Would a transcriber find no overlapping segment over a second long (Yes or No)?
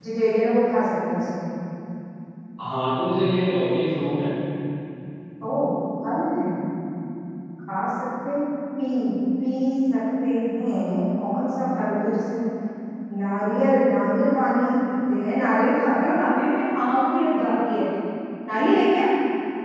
Yes